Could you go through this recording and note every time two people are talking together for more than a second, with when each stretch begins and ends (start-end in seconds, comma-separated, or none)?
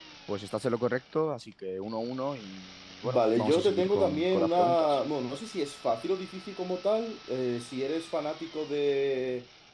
3.0-5.0